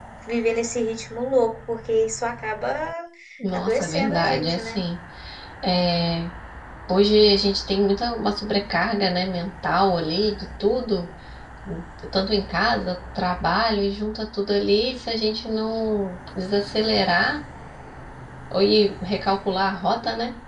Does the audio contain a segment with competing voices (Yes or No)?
Yes